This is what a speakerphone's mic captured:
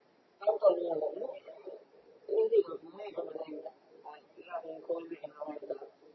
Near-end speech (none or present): none